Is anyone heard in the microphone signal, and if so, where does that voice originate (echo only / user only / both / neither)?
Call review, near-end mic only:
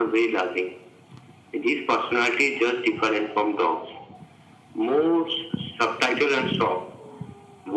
echo only